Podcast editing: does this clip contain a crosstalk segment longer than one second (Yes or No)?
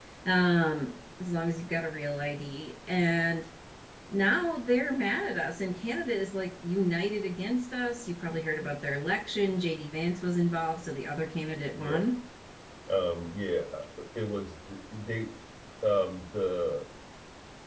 No